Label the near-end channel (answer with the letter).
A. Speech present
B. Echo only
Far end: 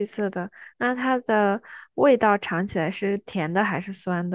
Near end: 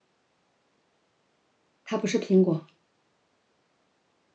A